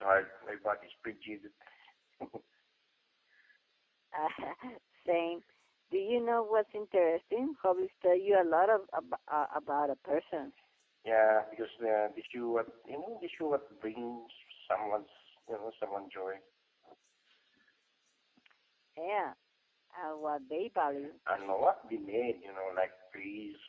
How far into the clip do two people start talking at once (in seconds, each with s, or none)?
none